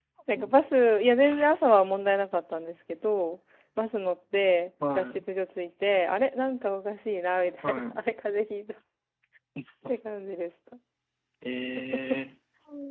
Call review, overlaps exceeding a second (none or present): none